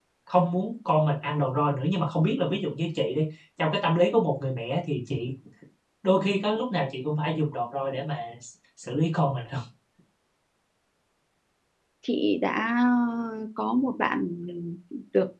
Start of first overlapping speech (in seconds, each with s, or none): none